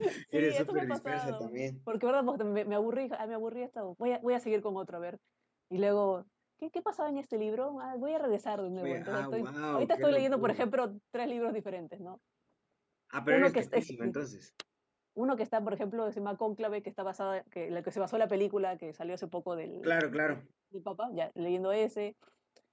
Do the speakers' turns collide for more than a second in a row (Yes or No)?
Yes